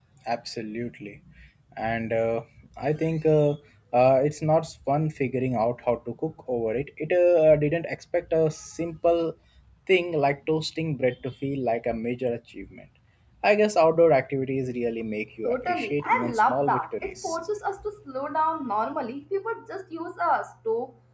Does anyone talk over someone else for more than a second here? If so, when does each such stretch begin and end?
15.4-17.4

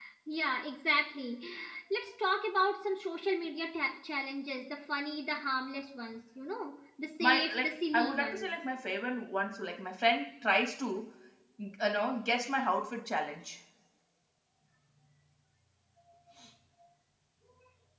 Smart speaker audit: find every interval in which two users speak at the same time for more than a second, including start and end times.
7.2-8.5

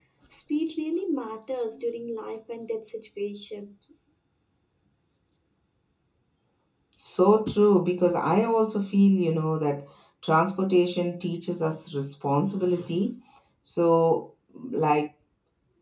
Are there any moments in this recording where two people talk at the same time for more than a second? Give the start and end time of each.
none

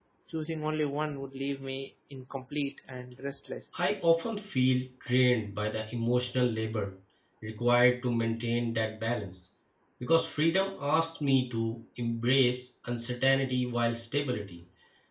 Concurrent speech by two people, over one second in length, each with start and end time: none

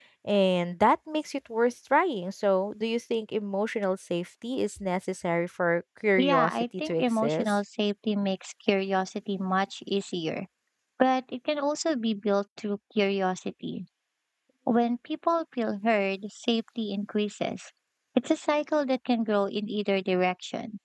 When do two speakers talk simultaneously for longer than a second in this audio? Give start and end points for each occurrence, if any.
6.2-7.6

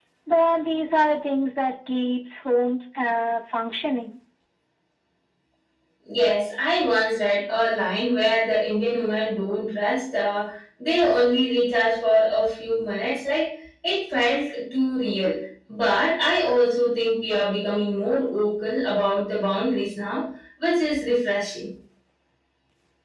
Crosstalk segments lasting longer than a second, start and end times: none

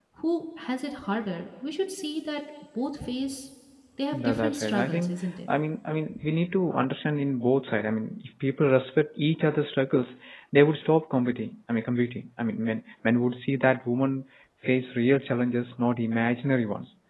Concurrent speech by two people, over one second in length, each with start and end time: 4.1-5.3

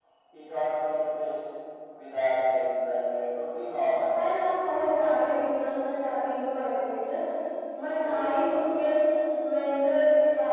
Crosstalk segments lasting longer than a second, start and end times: none

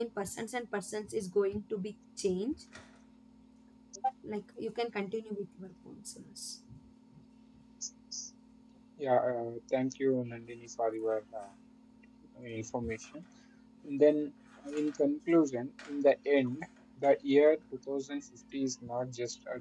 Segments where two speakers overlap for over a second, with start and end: none

